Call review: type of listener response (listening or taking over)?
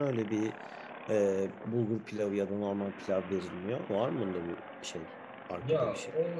taking over